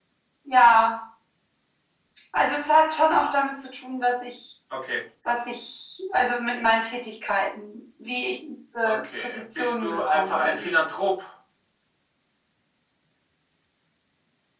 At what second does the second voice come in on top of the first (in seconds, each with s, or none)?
8.8 s